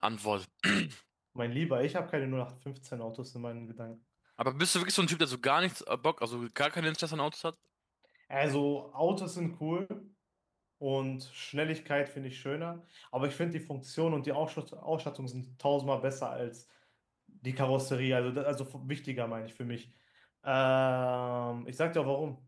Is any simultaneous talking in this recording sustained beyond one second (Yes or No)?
No